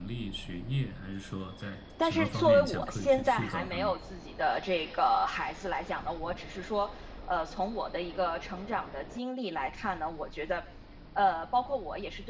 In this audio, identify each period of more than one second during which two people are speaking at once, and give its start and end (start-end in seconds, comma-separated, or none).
2.0-3.9